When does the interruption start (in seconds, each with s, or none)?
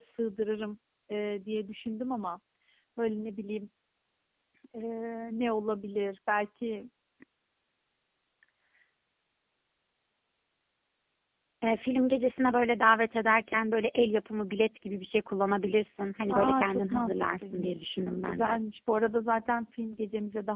16.3 s